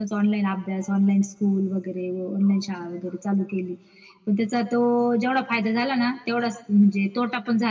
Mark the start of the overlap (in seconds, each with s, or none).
none